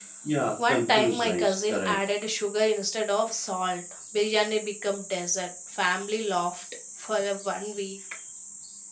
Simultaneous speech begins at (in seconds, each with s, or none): 0.7 s